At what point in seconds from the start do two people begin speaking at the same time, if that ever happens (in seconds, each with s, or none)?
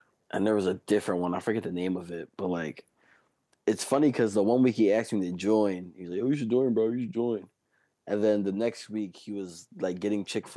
none